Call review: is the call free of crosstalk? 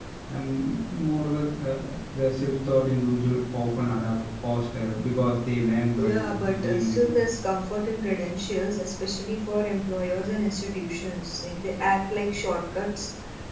No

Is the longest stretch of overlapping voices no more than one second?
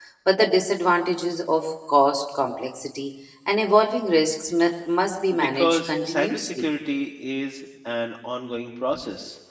No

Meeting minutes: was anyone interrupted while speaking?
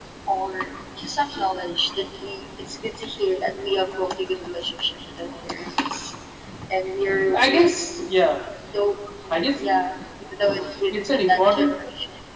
Yes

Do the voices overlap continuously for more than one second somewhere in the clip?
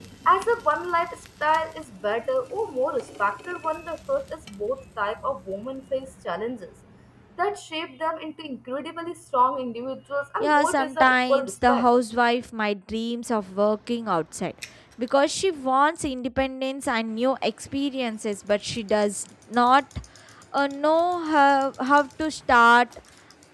Yes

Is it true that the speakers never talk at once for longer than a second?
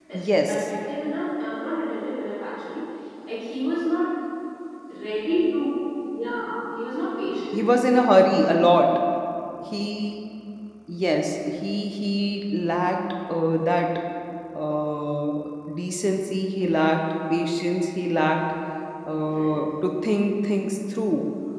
Yes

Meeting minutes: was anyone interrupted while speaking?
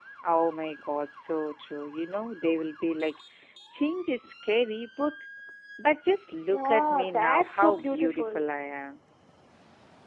Yes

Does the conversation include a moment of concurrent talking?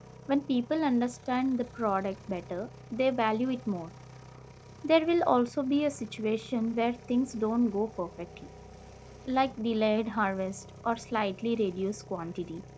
No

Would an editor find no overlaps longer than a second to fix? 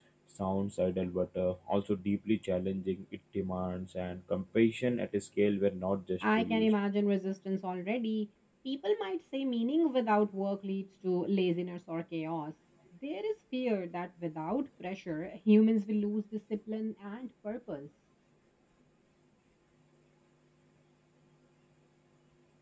Yes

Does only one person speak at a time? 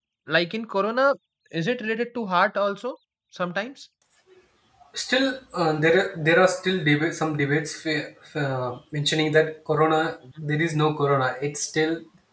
Yes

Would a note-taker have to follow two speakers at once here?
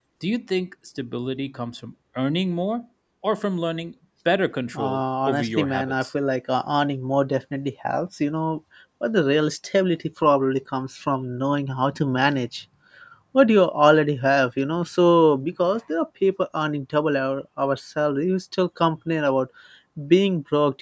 Yes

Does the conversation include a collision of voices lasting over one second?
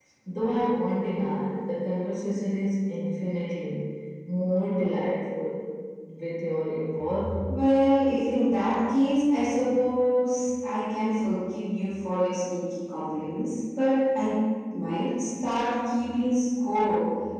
No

